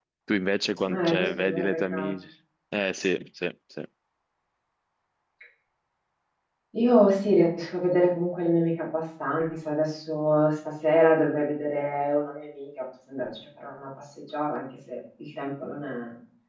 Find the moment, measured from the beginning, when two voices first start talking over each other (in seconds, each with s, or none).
0.8 s